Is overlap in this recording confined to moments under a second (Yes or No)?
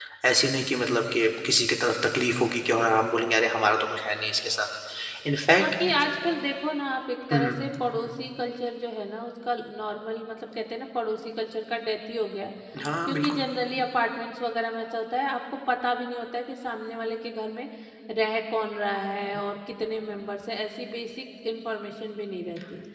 Yes